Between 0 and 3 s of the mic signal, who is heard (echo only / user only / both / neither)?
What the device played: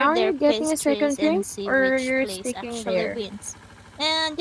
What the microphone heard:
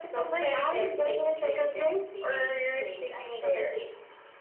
echo only